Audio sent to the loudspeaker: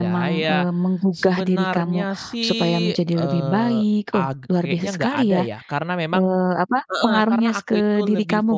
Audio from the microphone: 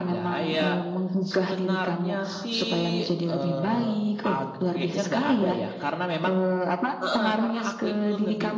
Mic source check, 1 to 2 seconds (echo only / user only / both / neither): echo only